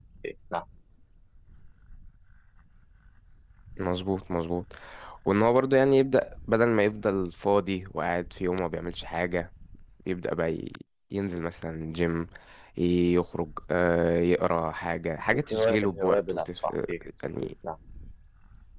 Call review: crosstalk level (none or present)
present